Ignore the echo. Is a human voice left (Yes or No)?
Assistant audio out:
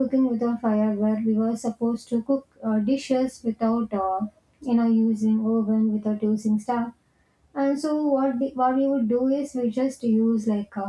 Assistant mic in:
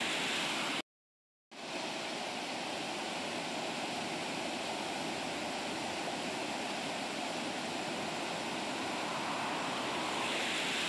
No